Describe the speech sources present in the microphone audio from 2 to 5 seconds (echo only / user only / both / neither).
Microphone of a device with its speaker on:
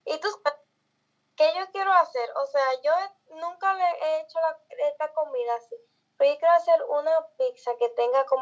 echo only